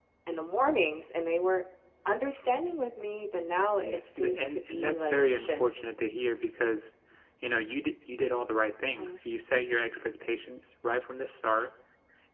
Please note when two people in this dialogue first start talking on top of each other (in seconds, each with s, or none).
3.8 s